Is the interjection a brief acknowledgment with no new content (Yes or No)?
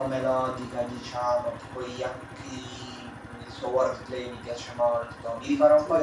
Yes